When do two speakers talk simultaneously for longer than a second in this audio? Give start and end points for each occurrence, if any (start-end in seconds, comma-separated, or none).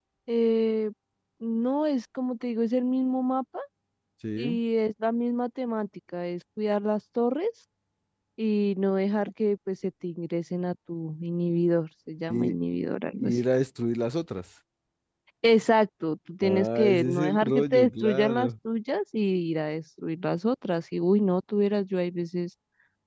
16.4-18.5